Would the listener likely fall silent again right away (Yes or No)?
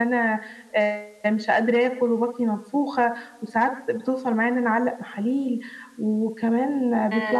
Yes